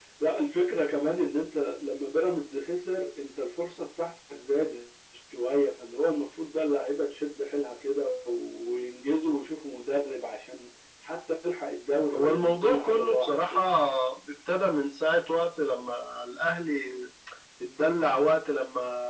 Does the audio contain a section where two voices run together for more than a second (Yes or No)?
Yes